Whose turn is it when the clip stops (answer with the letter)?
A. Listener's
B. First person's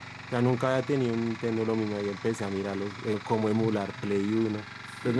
A